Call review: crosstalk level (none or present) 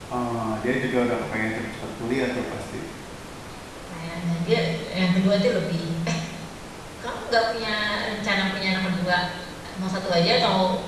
none